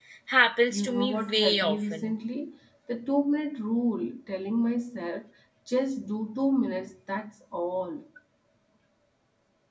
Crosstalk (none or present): present